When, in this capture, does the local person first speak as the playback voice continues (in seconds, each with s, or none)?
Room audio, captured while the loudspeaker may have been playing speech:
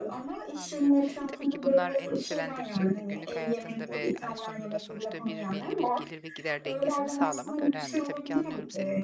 0.5 s